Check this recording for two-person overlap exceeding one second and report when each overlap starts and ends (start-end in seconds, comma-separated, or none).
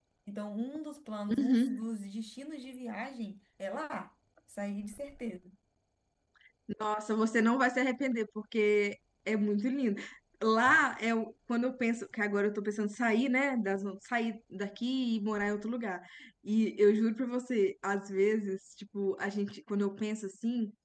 none